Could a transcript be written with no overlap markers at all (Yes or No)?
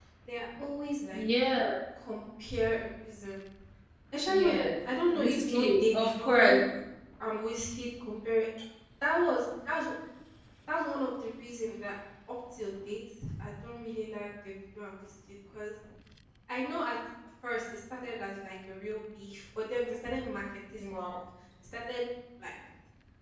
No